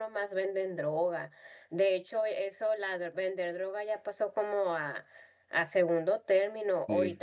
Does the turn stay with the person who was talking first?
Yes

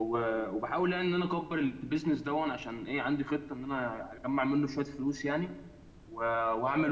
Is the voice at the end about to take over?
No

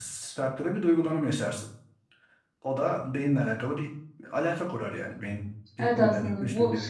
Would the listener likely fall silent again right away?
No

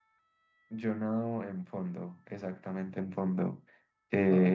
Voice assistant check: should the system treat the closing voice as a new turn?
No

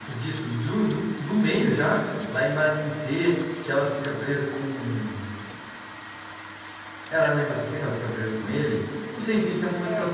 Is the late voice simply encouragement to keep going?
Yes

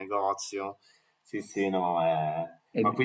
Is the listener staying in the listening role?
Yes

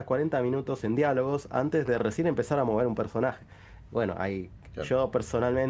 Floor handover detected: No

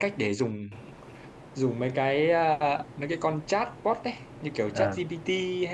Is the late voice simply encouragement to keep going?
Yes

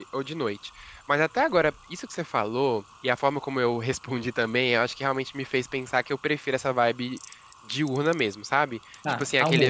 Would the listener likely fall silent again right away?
Yes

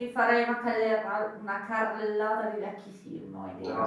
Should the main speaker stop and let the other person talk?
Yes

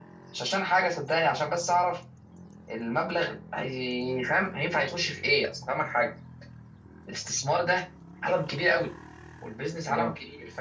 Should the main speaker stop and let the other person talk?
No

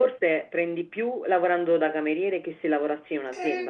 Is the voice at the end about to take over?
Yes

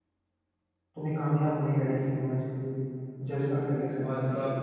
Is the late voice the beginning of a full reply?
Yes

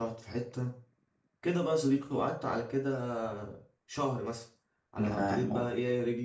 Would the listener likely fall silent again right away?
Yes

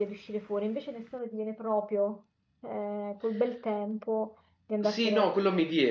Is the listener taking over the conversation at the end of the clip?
Yes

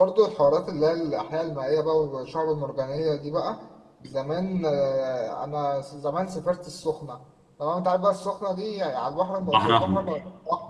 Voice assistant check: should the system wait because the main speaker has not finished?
Yes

